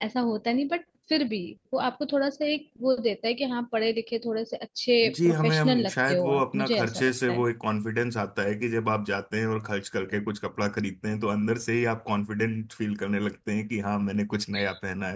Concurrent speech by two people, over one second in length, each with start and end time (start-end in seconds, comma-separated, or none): 5.0-7.4